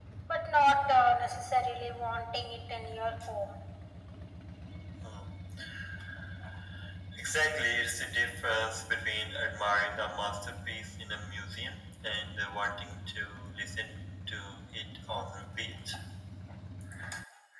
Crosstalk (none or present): none